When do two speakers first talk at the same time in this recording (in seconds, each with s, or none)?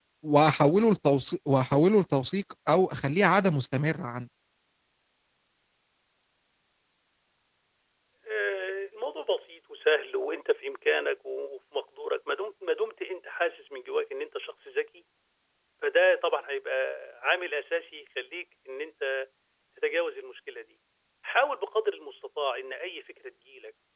none